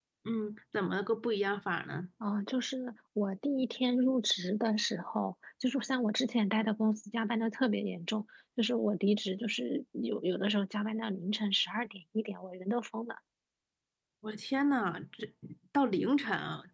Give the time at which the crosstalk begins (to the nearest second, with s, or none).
none